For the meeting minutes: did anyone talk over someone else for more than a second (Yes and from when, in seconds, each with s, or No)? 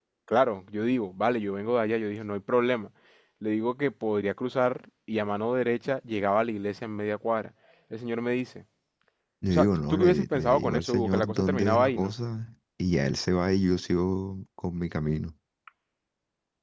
Yes, from 9.5 s